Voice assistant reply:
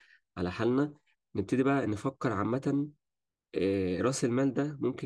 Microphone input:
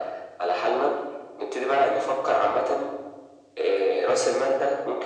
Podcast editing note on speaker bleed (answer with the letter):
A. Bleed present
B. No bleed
A